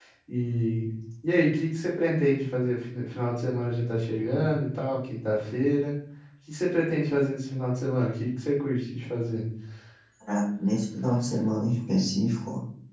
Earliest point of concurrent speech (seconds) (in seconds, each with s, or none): none